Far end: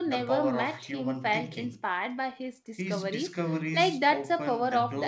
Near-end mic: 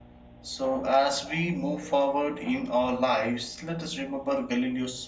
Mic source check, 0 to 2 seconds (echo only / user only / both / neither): user only